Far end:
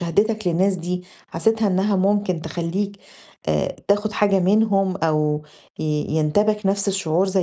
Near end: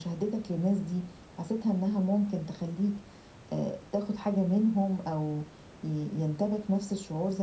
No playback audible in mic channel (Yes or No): No